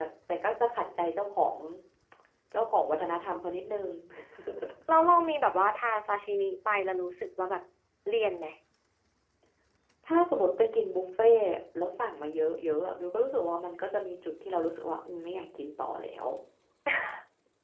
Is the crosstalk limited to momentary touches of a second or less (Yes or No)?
Yes